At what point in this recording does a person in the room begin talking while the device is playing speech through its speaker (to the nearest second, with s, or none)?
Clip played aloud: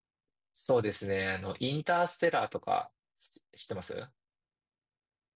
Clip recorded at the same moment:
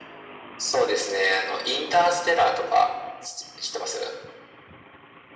none